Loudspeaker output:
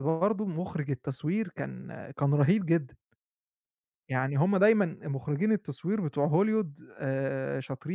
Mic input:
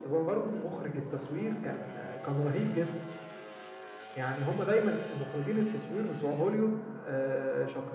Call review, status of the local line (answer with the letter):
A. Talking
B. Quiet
B